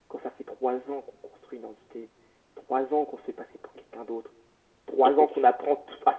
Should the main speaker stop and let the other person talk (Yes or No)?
No